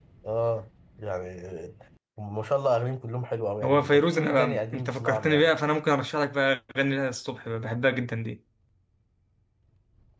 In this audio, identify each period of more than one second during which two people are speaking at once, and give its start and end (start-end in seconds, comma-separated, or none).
3.6-5.5